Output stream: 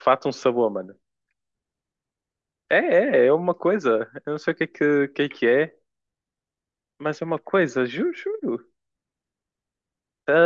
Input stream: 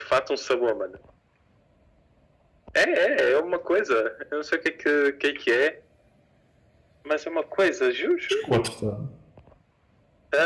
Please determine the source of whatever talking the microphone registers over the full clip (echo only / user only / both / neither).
both